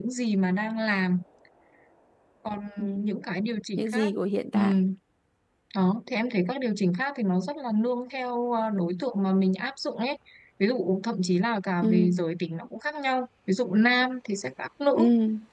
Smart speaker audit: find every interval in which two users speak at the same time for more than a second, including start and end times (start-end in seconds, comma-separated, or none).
none